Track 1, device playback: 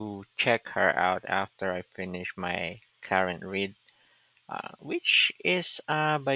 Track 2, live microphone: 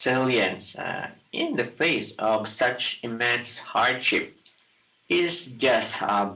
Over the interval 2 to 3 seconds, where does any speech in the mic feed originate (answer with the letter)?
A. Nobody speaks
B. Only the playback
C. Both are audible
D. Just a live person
D